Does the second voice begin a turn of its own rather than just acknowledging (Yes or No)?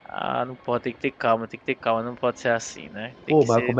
Yes